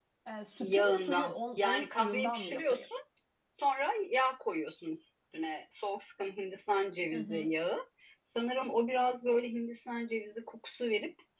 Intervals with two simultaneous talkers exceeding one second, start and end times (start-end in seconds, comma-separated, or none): 0.6-2.9